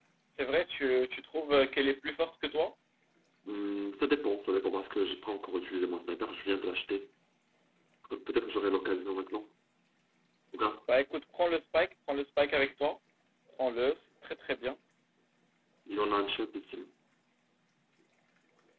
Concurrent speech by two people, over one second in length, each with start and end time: none

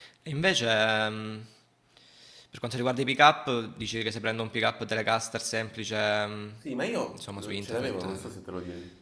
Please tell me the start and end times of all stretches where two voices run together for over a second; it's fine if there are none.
7.1-8.4

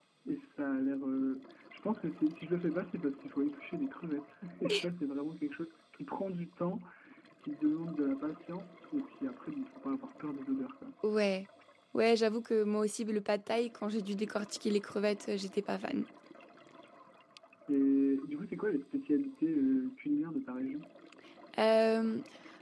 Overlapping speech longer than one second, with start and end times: none

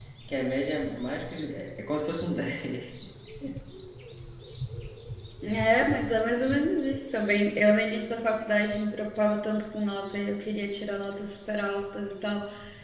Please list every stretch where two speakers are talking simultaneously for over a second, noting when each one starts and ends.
none

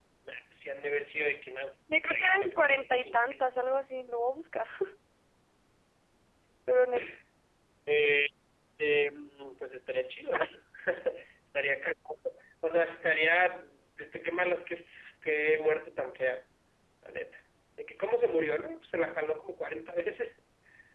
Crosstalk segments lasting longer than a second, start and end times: 2.1-3.5

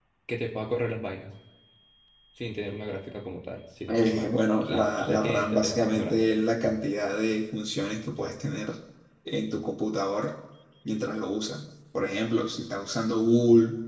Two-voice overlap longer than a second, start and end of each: 3.9-6.2

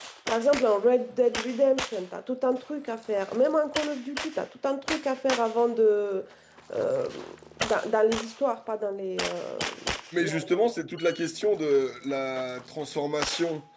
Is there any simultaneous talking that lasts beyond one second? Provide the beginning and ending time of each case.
none

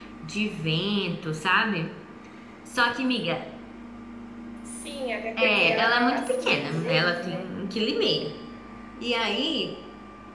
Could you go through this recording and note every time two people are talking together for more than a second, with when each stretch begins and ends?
5.4-7.5

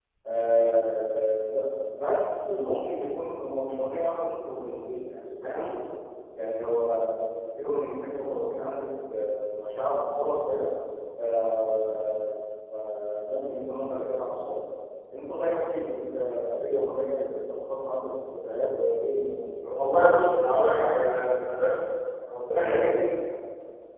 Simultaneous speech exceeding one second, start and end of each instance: none

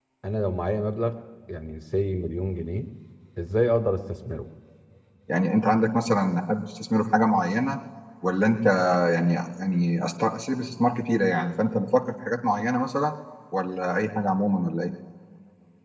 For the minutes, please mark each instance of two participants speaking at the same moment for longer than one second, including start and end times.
none

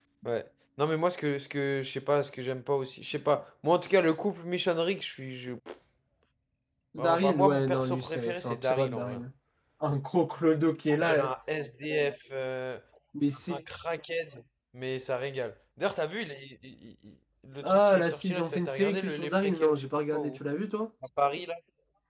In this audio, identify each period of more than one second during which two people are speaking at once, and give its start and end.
7.0-9.2, 17.6-20.3

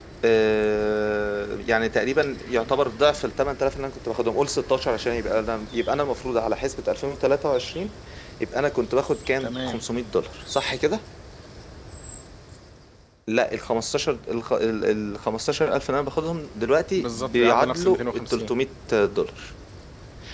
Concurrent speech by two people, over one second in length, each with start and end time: 17.0-18.5

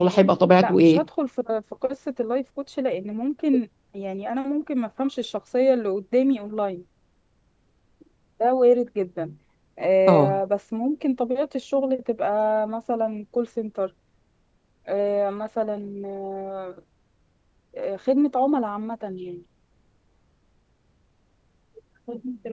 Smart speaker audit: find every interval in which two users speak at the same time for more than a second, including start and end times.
none

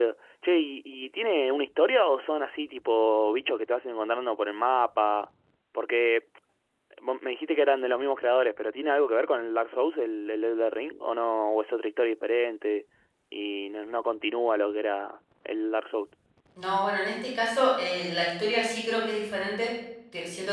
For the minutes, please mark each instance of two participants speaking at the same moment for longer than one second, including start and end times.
none

